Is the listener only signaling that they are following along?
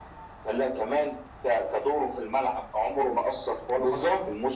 No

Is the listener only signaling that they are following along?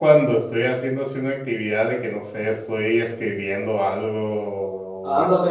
No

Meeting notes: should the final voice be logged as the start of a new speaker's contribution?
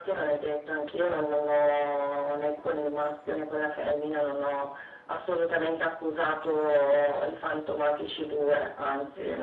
No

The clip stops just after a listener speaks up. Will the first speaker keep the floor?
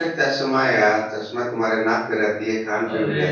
Yes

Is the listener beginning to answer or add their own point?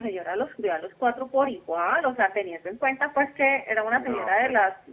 No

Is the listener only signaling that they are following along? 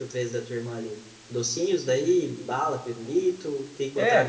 No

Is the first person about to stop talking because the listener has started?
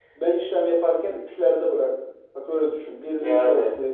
No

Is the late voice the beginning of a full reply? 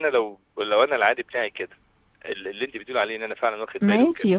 Yes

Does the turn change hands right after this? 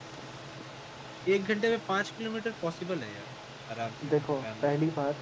Yes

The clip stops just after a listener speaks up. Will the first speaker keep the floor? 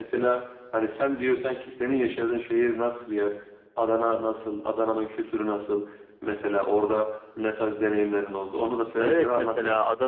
No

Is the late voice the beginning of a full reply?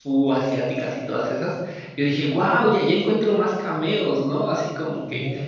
No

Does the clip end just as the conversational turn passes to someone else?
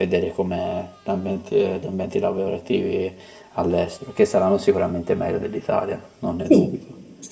Yes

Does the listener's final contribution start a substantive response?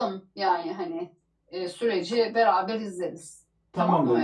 Yes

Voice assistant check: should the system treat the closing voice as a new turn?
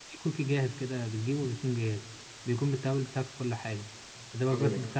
No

